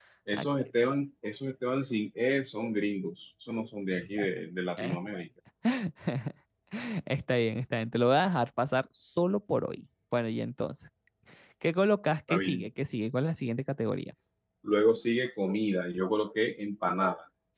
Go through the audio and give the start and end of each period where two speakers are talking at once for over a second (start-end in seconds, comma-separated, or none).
none